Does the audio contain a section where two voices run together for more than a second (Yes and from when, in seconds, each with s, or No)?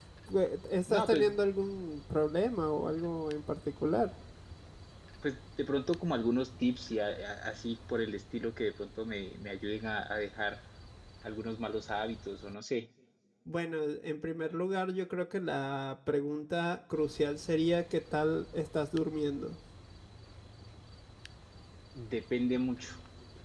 No